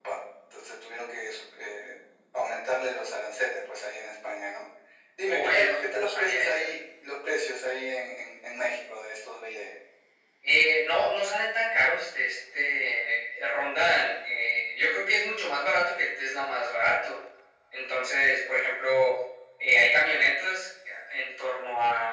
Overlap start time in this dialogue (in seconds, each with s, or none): 5.3 s